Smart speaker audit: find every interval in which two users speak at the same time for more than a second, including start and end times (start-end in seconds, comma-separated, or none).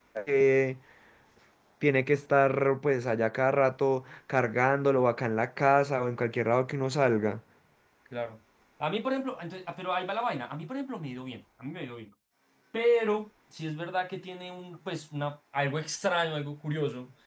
none